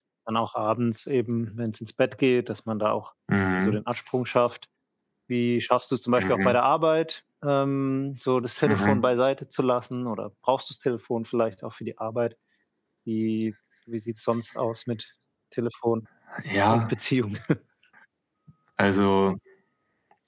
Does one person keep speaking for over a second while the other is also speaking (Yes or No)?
No